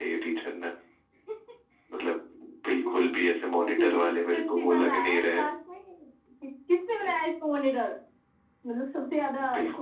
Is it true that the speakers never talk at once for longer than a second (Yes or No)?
No